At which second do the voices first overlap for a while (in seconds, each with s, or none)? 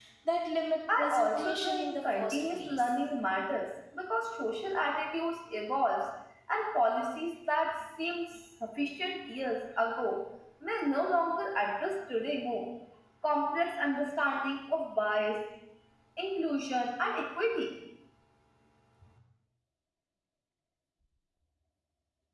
1.0 s